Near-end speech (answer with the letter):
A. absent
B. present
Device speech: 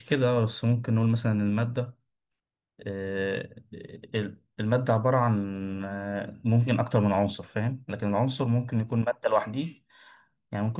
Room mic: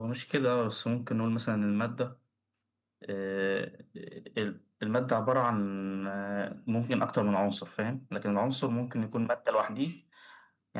A